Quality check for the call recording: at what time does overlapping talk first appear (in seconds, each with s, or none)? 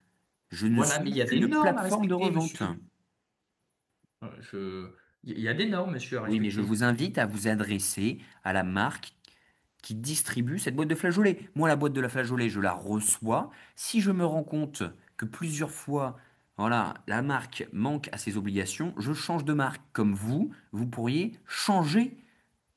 0.7 s